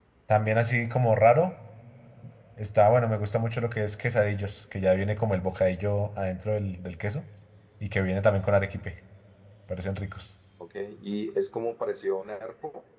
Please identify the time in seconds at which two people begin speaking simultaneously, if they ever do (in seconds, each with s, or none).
none